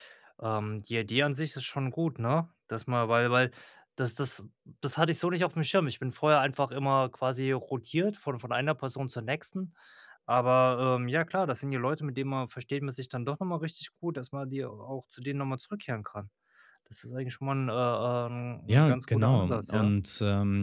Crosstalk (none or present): present